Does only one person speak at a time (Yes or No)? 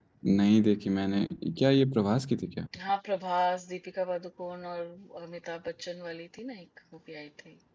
Yes